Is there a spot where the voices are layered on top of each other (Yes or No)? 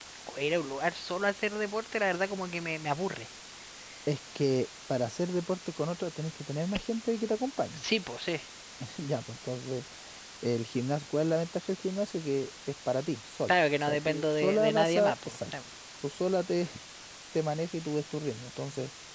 Yes